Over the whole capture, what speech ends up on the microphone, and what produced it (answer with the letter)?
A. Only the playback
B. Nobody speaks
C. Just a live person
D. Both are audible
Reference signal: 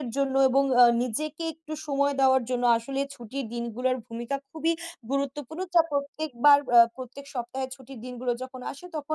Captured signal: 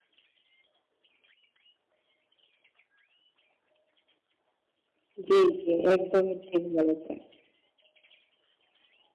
C